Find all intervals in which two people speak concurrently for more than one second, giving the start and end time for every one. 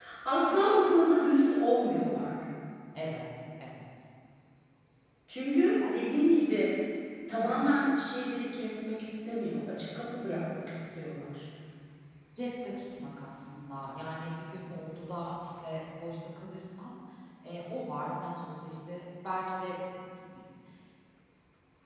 none

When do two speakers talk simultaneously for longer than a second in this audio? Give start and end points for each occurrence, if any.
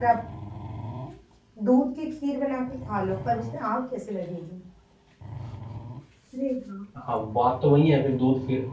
none

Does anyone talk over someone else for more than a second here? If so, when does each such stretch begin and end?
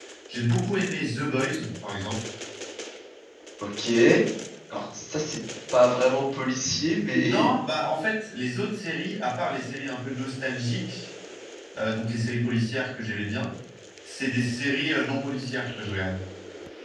none

